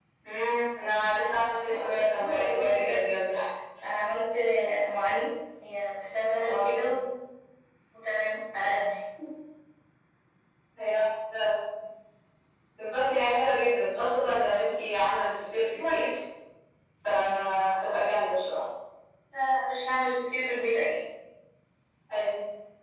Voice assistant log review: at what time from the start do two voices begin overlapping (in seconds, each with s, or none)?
1.6 s